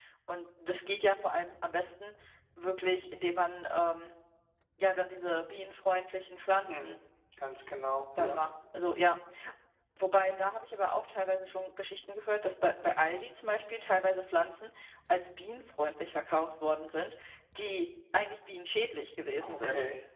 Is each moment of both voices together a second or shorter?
Yes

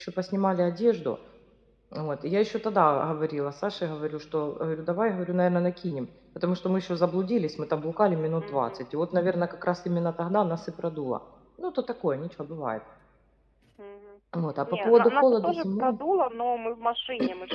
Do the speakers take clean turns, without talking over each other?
No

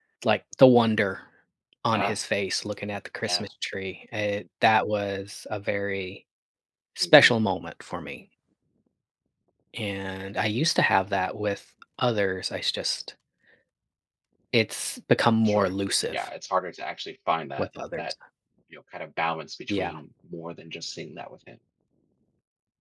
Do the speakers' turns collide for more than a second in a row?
No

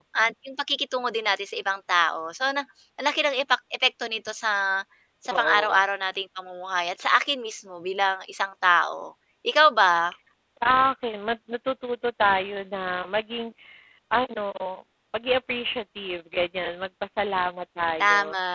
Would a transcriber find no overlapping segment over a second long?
Yes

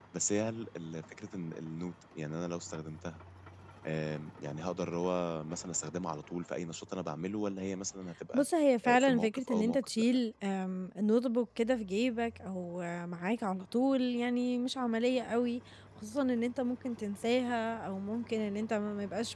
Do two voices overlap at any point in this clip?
Yes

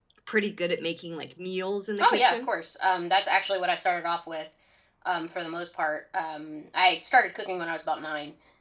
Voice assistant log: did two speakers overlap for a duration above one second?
No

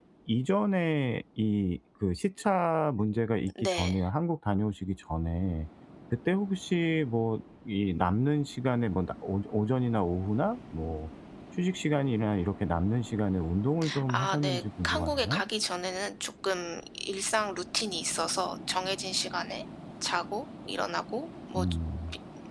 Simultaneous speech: Yes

